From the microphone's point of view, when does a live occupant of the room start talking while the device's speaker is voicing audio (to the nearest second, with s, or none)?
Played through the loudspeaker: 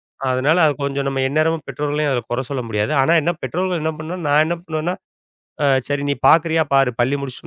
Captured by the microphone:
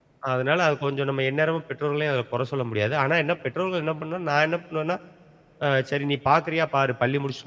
none